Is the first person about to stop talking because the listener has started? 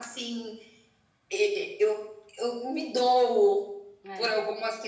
No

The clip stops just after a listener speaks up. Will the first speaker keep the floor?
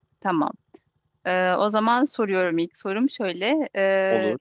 Yes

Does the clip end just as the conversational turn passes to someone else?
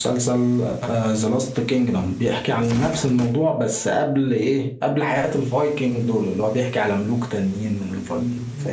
Yes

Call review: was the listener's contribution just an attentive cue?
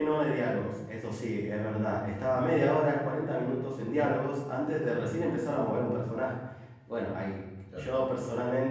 Yes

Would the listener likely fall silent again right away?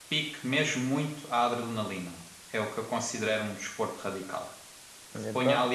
Yes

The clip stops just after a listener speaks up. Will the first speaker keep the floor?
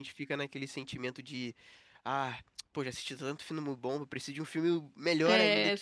No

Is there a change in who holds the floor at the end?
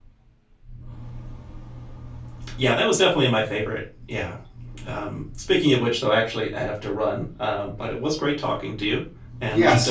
Yes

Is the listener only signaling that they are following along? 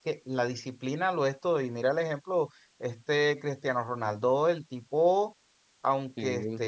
Yes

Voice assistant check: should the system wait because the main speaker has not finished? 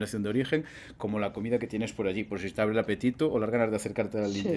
No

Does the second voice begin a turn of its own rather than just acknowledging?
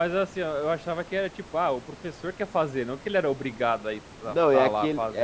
Yes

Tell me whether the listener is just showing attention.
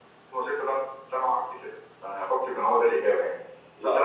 Yes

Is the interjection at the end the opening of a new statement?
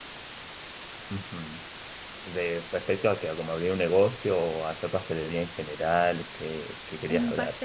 Yes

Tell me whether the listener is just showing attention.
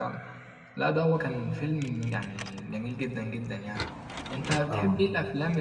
Yes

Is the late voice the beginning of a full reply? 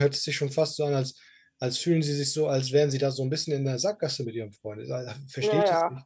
Yes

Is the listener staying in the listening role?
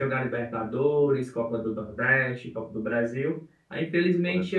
Yes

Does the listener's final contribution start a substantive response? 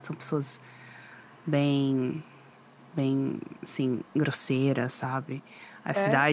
No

